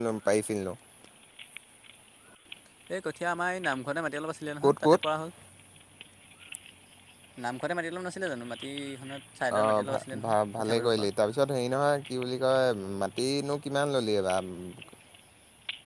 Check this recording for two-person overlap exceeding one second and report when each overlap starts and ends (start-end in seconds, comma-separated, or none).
9.6-11.1